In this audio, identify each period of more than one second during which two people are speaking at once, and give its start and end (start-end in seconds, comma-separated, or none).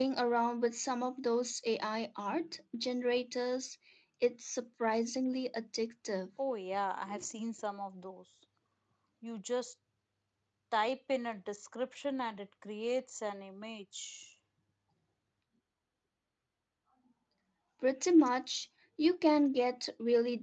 none